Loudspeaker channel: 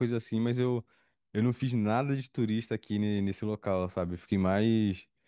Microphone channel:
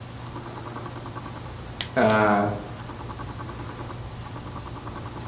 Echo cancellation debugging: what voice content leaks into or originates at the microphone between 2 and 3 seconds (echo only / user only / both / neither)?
user only